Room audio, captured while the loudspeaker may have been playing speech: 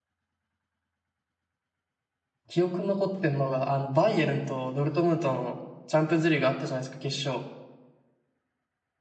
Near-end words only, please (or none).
記憶に残ってるのが、あの、バイエルンとドルトムントのチャンピオンズリーグあったじゃないですか、決勝。